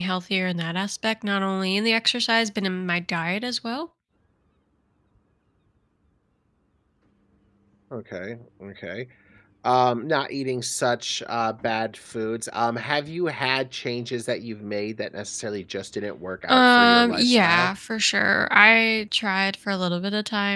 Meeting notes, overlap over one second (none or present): present